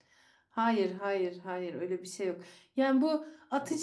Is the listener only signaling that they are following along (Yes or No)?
Yes